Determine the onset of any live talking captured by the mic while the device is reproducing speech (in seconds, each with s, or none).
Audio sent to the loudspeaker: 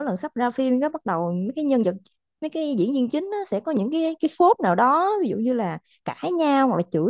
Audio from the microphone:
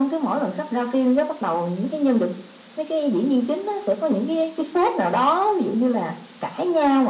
none